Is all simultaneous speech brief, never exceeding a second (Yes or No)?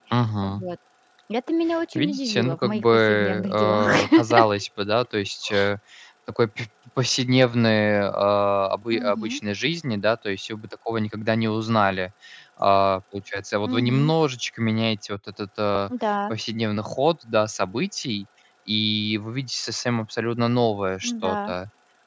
No